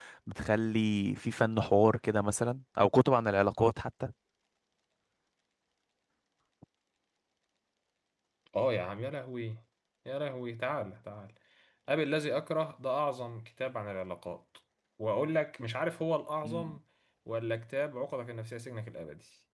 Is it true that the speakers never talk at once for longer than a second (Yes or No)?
Yes